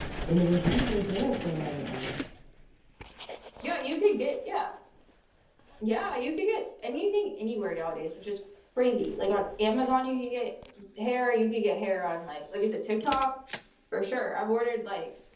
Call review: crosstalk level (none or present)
none